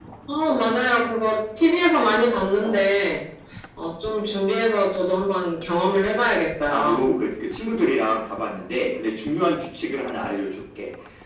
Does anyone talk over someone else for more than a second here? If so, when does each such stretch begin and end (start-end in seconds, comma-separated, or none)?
none